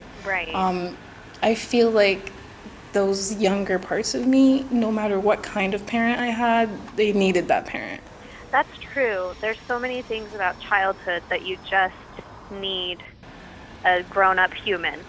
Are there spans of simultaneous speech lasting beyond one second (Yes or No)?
No